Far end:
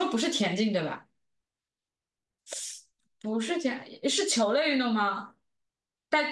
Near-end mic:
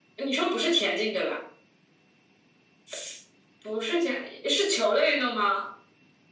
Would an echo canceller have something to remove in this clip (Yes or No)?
Yes